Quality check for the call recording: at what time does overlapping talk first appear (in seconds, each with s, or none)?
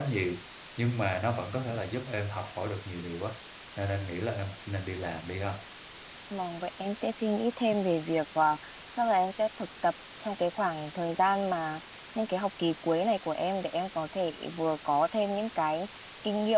none